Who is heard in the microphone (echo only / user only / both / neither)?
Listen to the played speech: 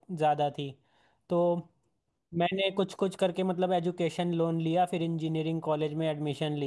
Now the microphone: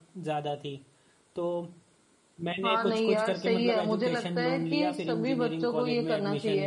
both